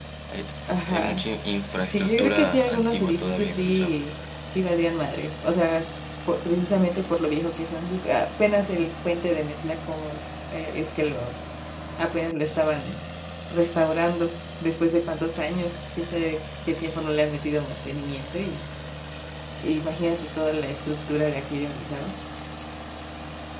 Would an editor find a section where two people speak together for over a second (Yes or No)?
Yes